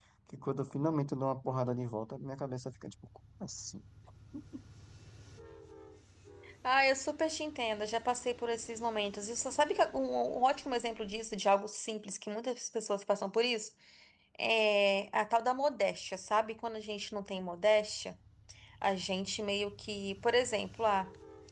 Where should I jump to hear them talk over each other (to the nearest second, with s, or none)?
none